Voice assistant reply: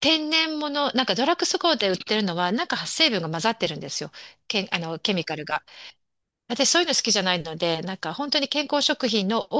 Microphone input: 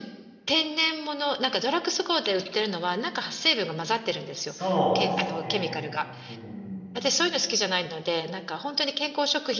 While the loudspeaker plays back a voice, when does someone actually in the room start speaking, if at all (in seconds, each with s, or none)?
4.4 s